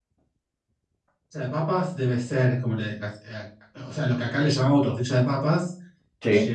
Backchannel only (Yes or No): Yes